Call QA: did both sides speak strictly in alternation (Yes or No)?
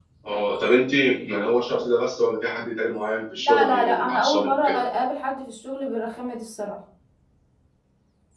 No